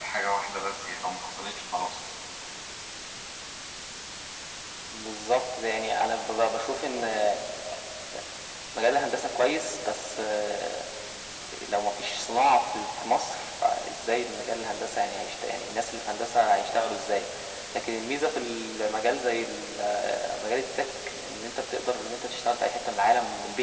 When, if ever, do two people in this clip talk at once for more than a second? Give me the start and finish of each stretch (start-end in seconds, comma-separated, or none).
none